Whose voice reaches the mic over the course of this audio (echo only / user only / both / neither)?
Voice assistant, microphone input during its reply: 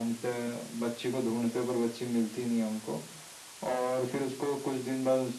echo only